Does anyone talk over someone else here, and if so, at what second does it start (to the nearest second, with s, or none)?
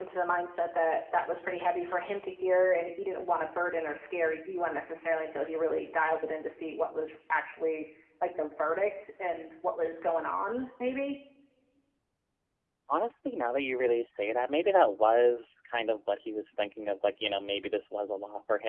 none